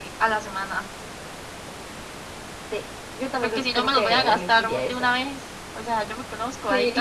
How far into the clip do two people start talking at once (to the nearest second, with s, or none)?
3 s